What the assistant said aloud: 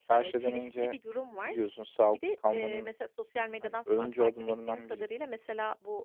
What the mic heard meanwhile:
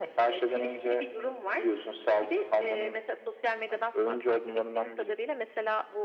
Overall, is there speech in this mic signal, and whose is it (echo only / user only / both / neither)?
echo only